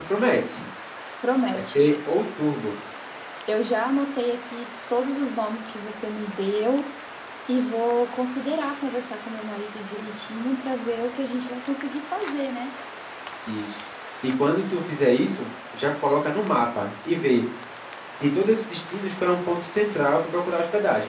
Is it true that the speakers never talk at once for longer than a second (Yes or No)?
Yes